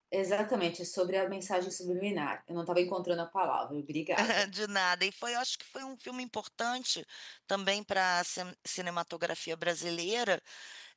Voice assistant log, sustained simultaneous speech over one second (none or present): none